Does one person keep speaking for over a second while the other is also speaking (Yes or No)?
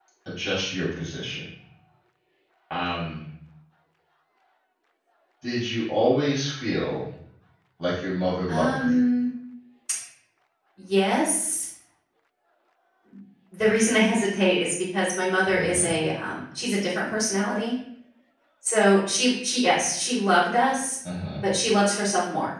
No